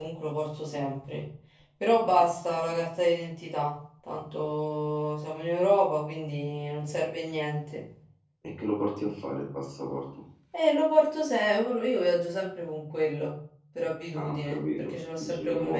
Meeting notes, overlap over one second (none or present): present